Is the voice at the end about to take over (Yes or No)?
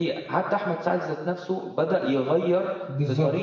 Yes